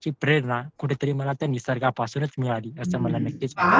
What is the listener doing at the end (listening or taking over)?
taking over